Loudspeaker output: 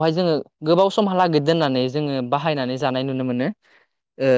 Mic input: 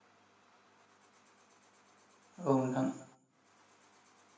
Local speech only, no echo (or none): औ नोंथां